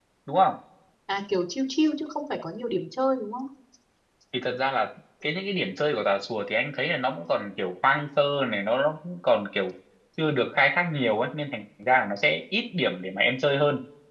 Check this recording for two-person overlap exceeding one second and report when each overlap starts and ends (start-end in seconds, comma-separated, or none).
none